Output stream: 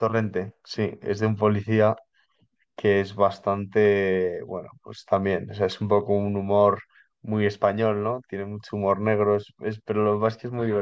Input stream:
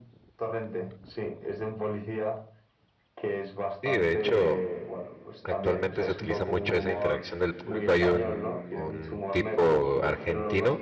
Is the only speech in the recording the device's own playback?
No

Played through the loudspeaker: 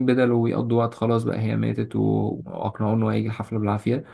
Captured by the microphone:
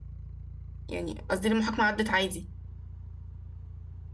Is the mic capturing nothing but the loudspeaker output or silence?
No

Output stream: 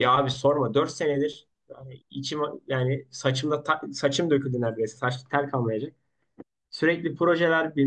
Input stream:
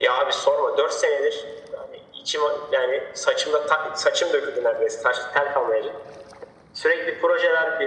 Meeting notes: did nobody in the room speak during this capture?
Yes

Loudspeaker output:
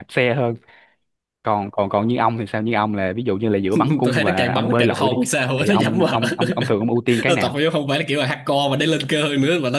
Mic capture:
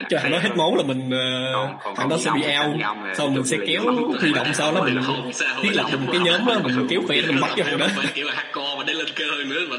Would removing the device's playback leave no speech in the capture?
No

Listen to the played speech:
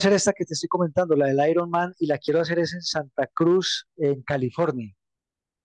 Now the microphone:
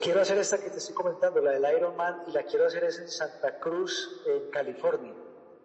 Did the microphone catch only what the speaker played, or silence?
Yes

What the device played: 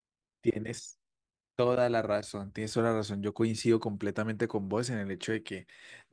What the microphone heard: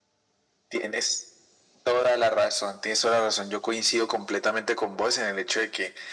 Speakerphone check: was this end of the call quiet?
Yes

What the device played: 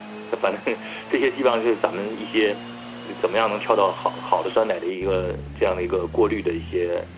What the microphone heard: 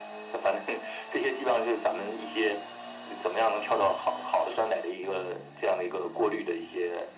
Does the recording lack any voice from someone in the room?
Yes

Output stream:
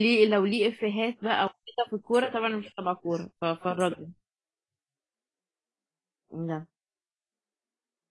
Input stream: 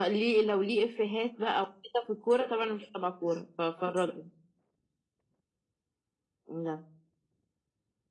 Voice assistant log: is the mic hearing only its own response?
Yes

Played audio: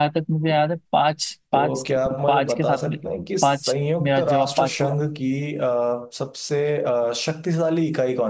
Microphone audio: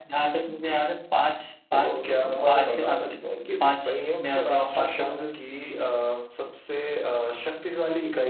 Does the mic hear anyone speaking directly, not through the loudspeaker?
No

